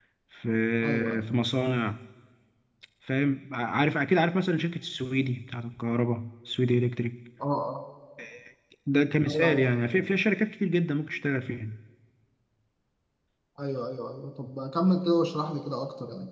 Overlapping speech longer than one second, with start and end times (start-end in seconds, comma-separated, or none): none